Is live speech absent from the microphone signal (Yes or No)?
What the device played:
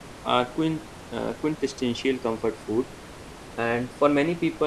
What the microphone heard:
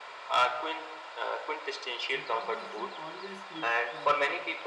No